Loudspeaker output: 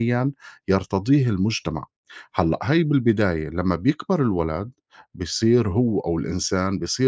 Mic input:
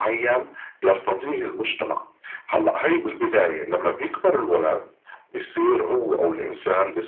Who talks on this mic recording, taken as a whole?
echo only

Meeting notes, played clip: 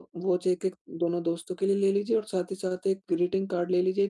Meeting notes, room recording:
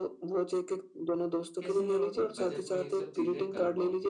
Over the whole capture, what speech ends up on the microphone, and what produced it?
both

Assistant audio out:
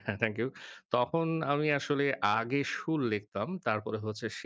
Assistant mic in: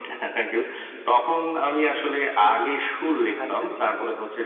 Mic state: both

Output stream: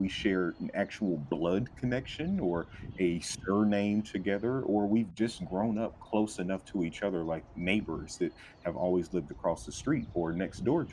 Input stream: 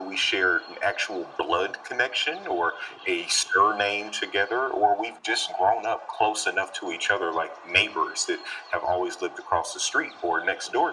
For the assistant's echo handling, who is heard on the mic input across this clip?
echo only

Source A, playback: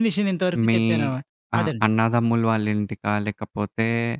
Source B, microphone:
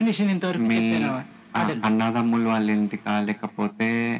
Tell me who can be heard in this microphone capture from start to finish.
echo only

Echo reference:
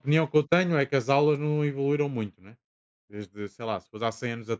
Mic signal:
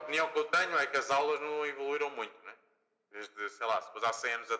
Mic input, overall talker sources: echo only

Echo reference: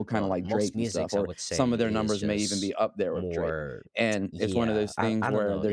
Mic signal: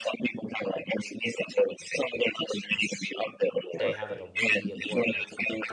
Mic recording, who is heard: both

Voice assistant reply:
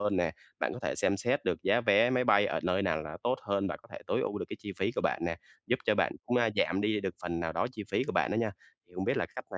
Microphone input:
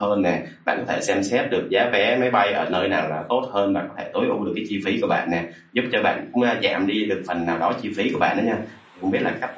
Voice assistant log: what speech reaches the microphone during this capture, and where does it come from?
echo only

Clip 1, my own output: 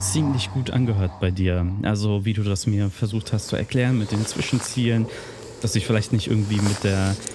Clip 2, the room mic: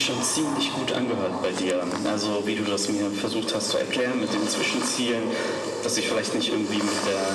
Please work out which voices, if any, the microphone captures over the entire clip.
echo only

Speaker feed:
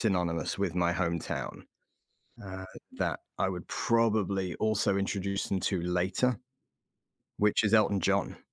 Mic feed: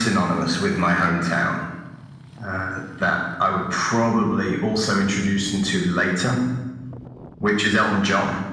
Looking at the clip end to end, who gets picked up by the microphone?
echo only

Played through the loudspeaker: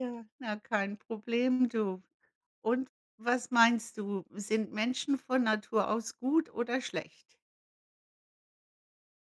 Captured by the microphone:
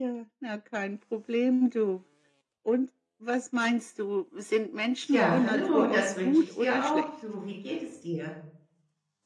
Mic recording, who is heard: both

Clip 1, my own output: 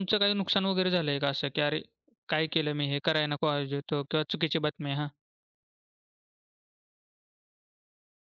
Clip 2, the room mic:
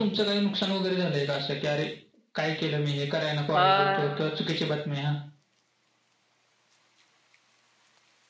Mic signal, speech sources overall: both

